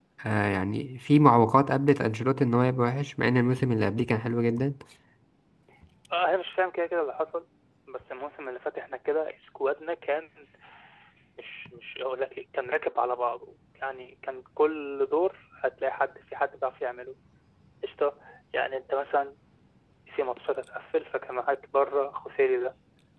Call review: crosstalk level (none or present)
none